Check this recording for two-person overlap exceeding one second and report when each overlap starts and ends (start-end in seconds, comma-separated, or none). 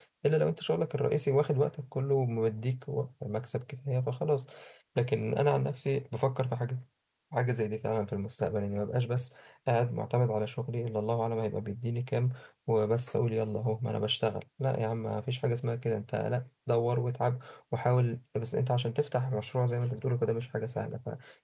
none